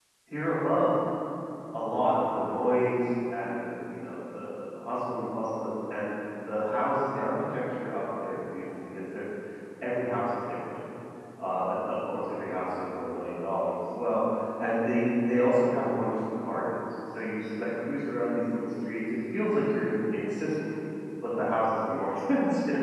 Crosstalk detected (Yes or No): No